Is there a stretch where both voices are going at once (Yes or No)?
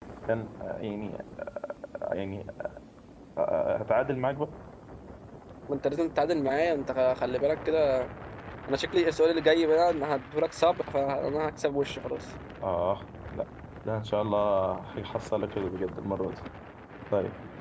No